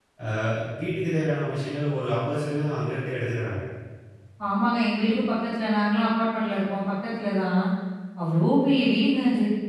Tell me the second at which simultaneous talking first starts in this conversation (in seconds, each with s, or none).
none